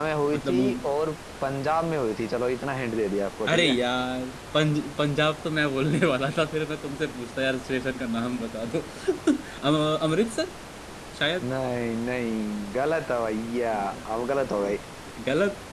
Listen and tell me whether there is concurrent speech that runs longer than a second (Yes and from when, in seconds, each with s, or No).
No